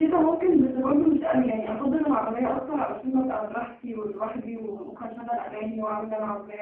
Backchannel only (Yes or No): Yes